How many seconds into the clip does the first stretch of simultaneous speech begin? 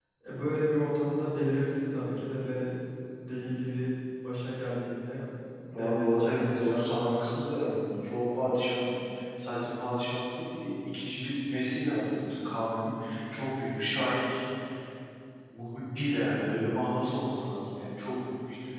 5.7 s

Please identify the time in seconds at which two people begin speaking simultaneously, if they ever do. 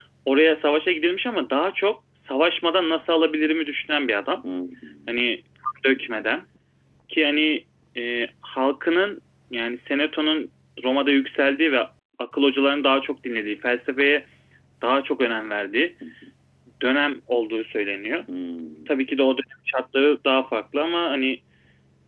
none

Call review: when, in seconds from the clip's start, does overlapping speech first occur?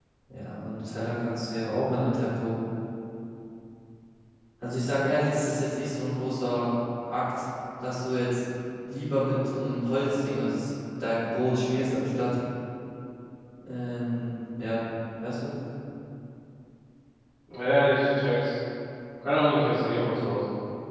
none

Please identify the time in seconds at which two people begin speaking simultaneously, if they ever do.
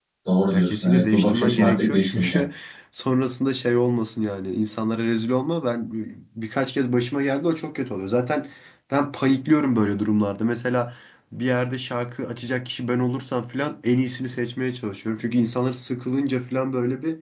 0.5 s

